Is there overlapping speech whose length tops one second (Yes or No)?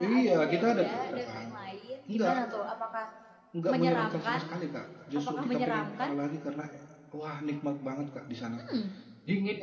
Yes